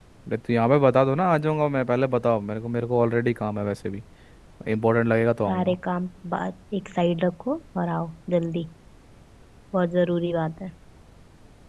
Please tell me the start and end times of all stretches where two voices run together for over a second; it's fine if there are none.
none

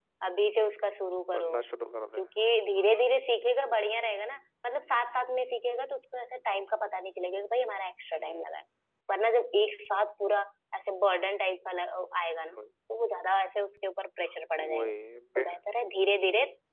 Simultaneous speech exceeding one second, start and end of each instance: none

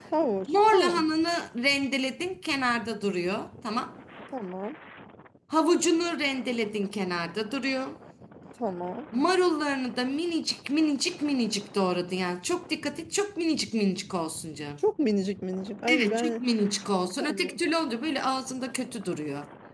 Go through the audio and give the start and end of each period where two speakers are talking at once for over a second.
none

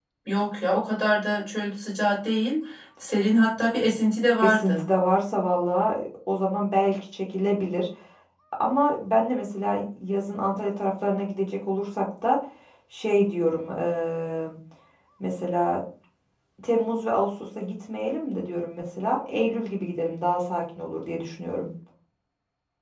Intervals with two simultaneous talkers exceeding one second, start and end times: none

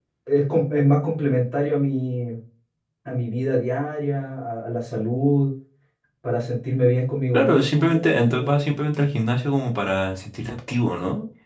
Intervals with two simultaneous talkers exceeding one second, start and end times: 7.3-8.6

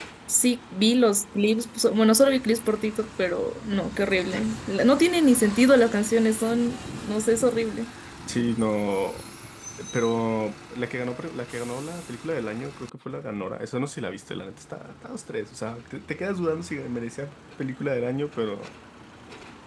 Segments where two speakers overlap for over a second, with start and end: none

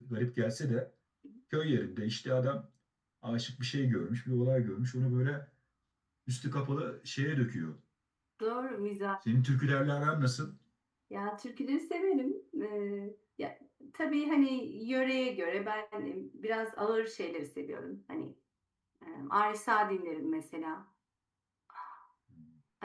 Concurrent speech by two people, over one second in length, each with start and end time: none

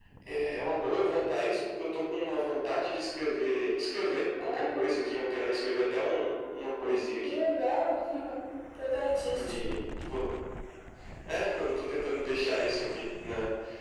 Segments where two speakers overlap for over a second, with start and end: none

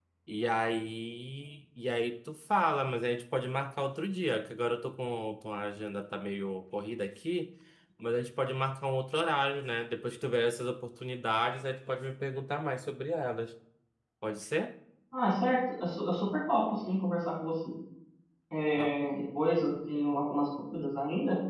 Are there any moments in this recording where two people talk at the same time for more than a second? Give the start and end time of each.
none

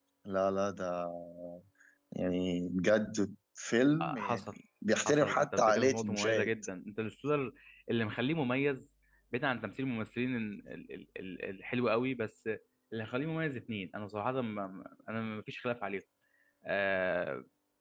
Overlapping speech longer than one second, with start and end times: 5.1-6.5

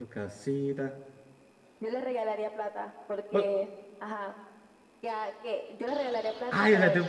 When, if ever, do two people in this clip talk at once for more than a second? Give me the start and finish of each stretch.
none

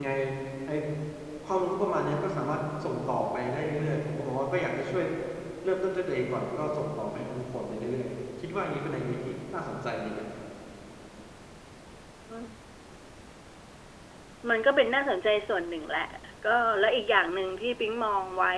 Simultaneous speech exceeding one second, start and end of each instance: none

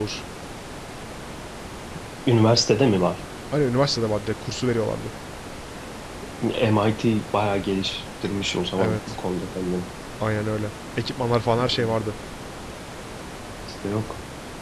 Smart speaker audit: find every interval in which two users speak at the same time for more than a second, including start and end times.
none

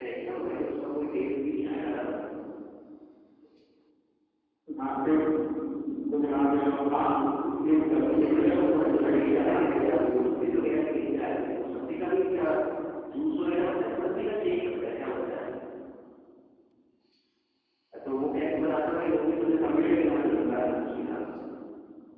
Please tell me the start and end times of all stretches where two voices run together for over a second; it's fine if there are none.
7.9-10.2, 19.4-20.7

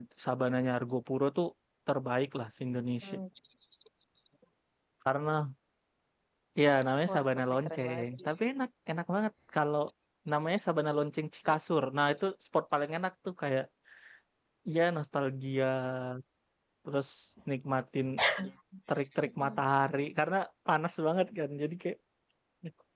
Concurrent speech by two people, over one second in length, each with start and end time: 7.1-8.3

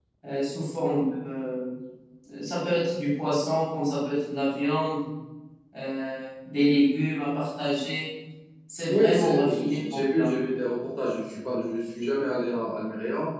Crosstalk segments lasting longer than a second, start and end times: 8.9-10.3

